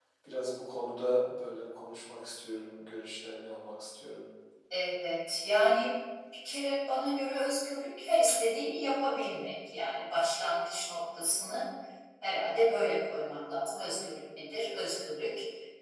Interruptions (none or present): none